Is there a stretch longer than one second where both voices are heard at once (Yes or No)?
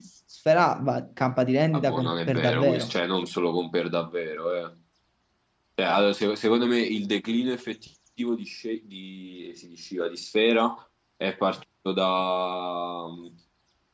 Yes